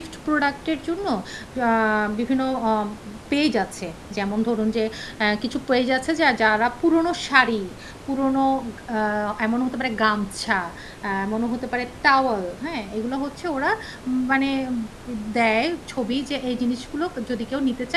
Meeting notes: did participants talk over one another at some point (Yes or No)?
No